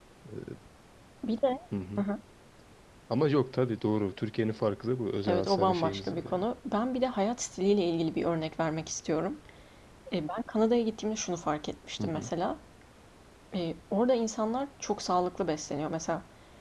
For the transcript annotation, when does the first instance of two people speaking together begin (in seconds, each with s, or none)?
5.2 s